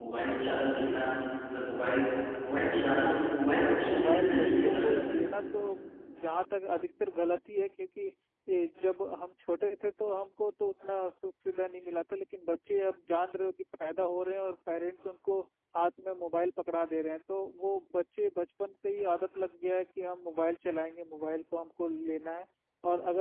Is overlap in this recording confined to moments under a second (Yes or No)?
No